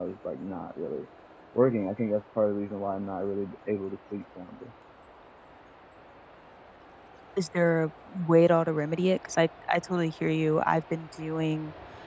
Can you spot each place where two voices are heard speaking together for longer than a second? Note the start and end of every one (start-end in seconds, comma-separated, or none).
none